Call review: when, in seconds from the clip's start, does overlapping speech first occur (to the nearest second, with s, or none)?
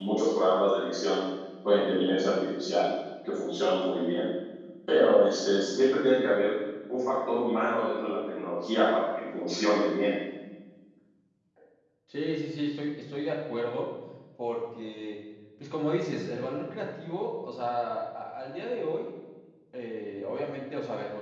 none